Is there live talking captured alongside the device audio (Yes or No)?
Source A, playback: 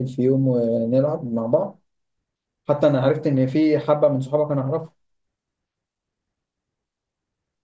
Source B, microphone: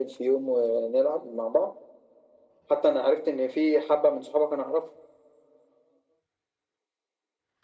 No